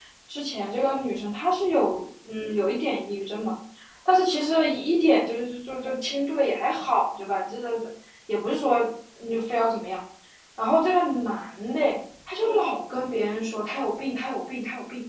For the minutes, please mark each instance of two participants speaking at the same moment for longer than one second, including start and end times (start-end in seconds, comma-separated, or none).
none